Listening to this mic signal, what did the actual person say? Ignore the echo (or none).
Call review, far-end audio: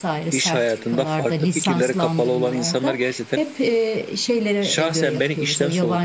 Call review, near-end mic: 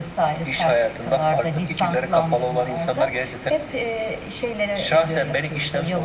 none